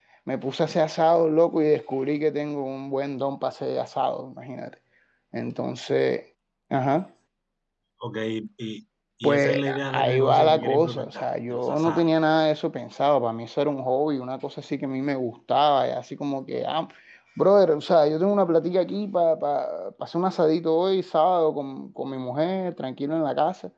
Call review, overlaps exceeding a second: present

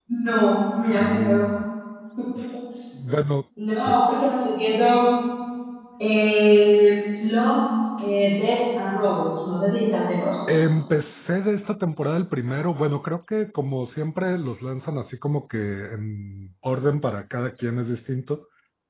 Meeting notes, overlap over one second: none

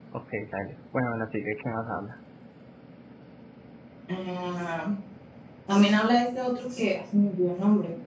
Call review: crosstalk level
none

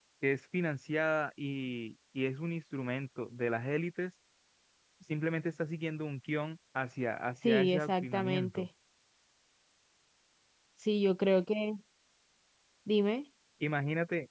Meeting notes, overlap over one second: present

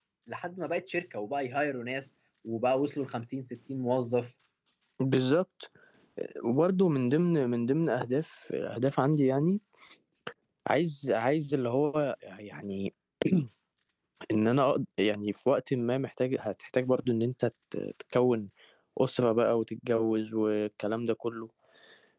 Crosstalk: none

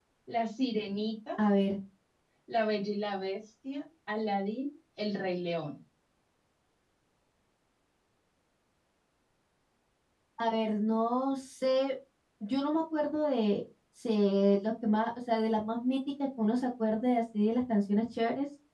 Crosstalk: none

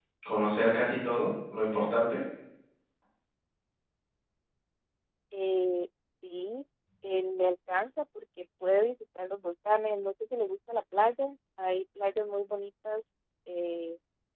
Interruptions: none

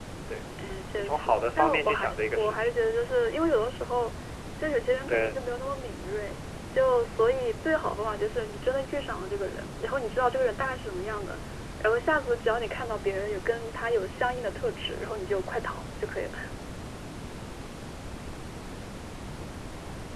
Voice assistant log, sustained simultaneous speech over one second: present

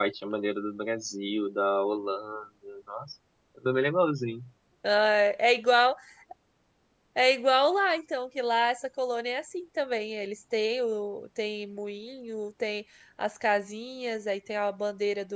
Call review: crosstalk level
none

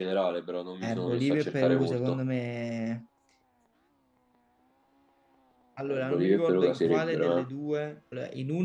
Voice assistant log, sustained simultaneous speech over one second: present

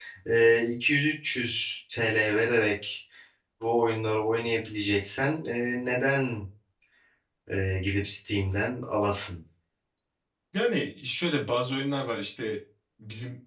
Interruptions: none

